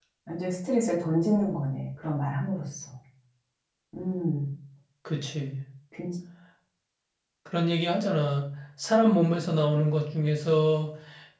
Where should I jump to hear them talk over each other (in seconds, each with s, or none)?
none